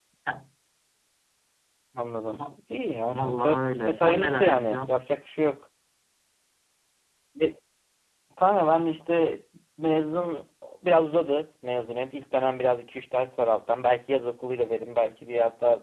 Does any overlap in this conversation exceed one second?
Yes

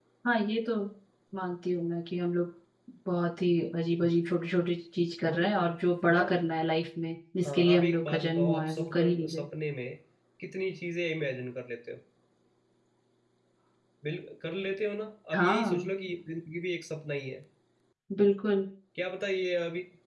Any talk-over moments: Yes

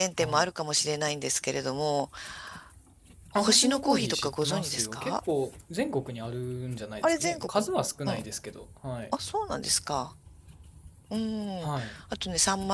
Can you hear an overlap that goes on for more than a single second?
Yes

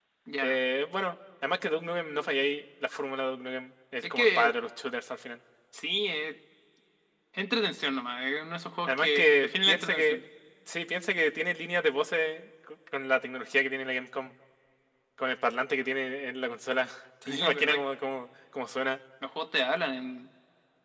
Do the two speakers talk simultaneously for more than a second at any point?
Yes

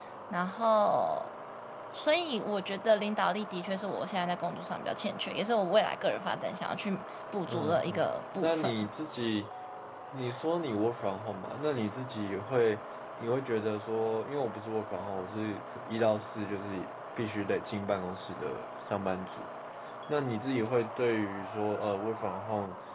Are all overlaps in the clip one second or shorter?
No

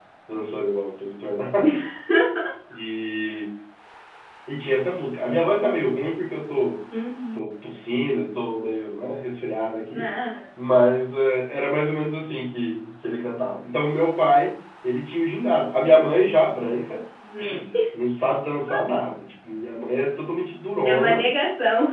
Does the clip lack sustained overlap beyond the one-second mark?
Yes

